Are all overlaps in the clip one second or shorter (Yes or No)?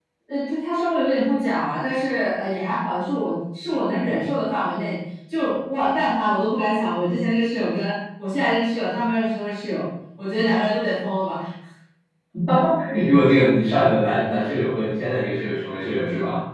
Yes